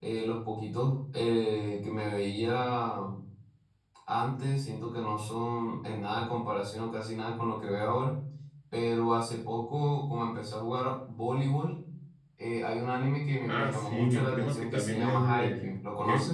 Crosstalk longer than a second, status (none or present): present